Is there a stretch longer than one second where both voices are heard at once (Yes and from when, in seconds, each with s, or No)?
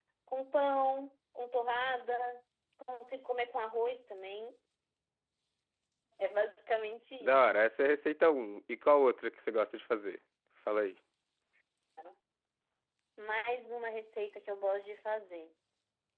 No